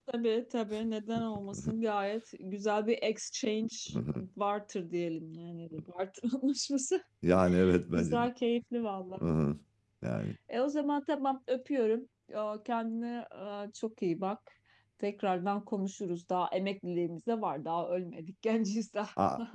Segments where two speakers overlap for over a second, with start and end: none

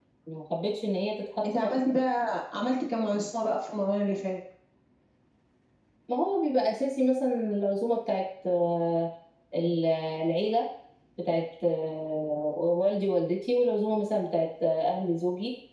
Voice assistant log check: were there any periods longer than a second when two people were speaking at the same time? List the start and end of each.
none

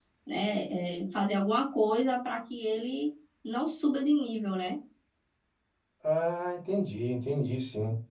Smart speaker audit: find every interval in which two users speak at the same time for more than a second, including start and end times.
none

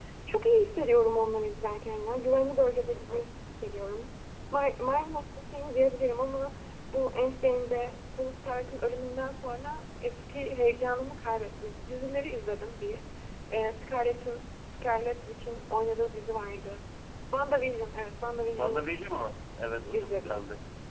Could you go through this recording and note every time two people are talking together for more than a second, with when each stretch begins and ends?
none

